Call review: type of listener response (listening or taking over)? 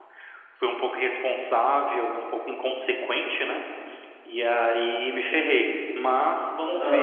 taking over